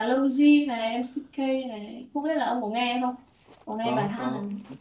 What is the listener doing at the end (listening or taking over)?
taking over